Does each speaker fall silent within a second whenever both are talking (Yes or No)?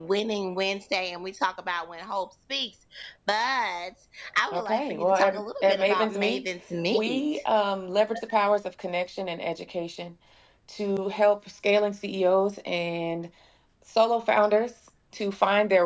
No